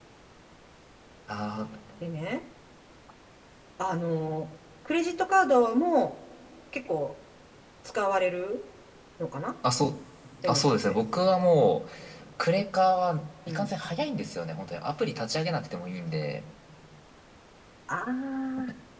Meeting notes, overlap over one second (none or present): none